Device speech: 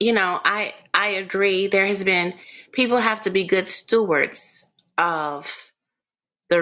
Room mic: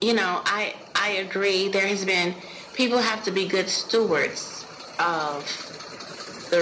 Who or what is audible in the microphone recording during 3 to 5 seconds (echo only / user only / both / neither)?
echo only